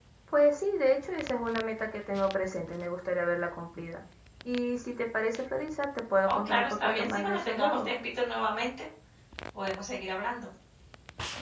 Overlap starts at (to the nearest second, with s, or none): 6 s